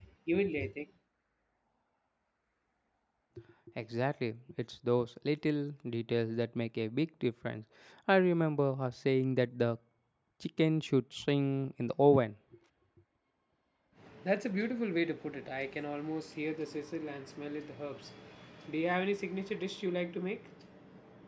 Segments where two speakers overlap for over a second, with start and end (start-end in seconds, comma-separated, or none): none